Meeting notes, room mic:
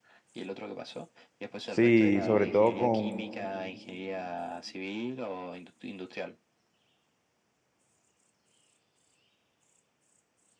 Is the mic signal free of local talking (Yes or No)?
No